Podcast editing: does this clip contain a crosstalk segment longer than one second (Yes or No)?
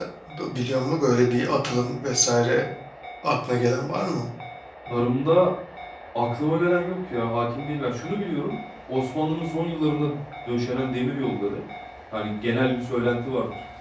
No